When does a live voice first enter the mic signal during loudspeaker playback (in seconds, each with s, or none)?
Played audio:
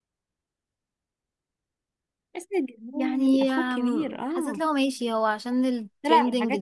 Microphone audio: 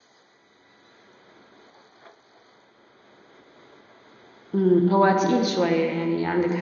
4.5 s